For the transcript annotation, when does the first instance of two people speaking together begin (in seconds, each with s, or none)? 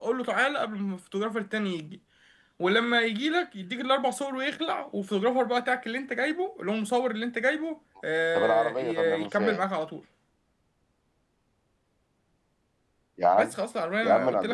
8.3 s